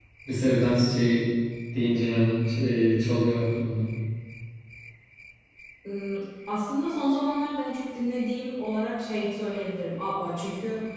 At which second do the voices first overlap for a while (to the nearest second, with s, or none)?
none